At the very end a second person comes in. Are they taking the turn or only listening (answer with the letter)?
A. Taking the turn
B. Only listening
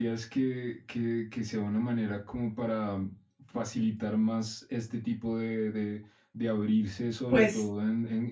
B